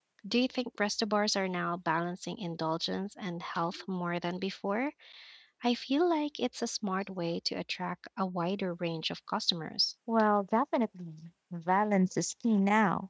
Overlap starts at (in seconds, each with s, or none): none